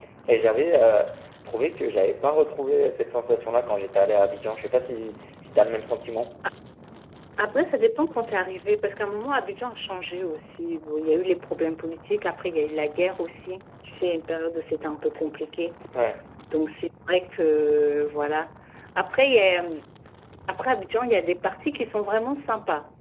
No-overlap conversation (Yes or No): Yes